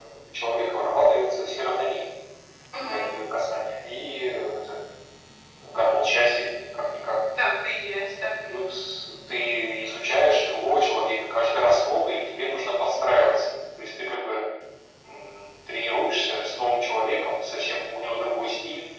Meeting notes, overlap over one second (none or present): none